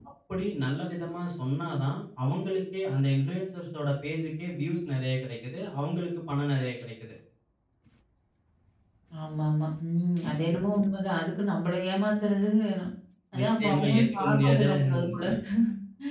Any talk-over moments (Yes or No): Yes